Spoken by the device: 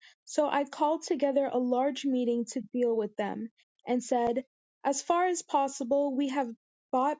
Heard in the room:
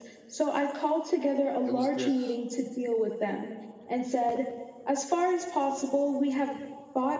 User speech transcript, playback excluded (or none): it was this